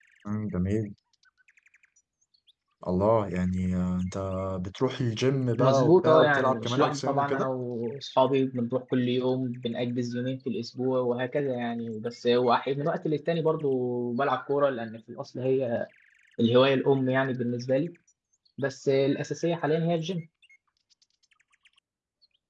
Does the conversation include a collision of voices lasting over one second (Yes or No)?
Yes